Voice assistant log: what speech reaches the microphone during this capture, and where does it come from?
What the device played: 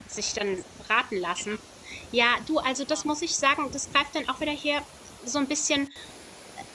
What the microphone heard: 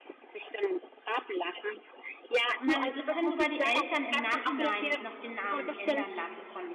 both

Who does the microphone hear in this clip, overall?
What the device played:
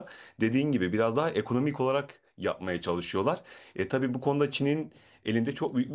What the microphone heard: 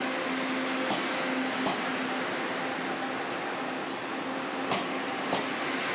neither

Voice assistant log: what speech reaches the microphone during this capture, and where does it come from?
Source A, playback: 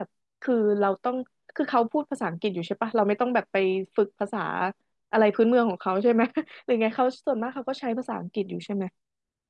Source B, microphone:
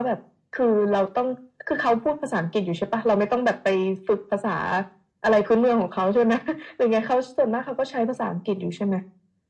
echo only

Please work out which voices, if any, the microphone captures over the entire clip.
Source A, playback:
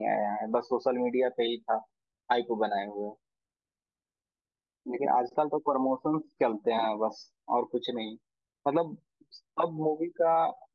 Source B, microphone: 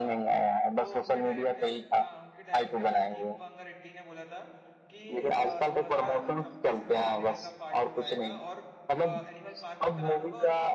both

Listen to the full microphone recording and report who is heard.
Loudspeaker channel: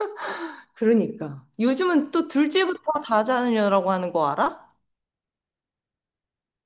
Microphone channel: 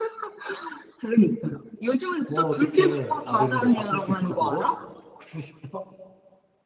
both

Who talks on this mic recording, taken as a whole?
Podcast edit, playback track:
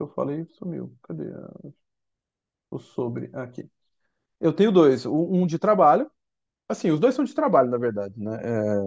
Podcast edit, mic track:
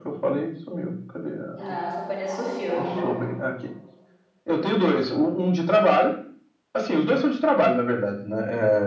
both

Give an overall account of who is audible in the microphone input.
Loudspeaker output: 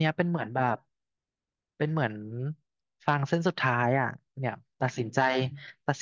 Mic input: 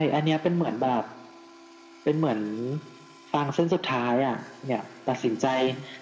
echo only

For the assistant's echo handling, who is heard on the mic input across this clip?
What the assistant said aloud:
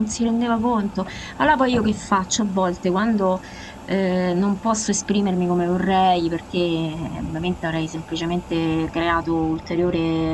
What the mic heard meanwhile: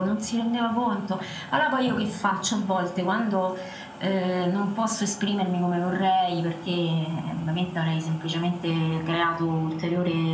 echo only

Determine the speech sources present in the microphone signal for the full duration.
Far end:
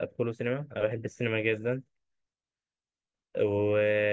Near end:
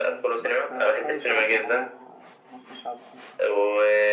both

